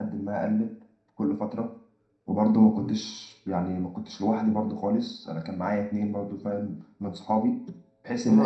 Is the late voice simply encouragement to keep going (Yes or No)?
No